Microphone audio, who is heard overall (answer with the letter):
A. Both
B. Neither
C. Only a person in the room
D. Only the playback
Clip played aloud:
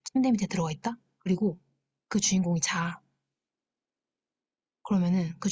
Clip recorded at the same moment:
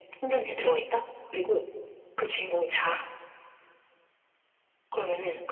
D